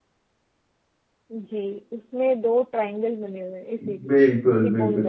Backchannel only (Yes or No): No